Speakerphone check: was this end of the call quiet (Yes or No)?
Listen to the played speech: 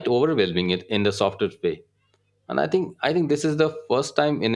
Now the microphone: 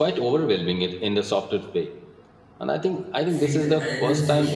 No